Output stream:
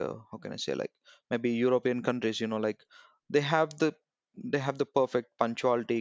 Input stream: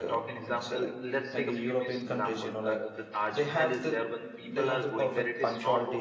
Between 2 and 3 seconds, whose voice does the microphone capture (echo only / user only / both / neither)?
both